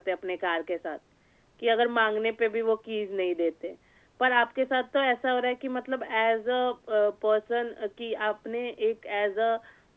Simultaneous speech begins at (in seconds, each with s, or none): none